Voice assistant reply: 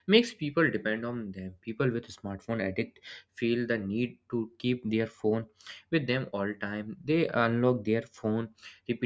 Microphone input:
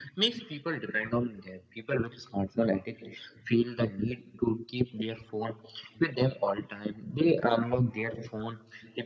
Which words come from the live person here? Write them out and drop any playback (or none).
none